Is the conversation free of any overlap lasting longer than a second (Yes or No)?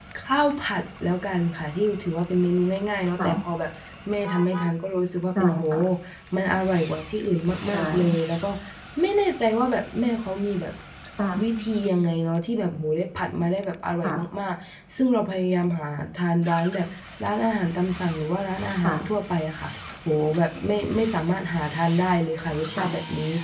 Yes